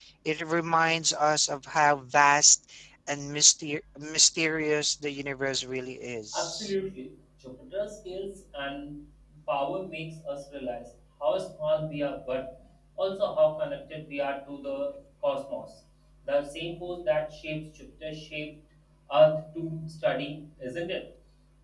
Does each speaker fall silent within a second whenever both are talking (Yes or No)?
Yes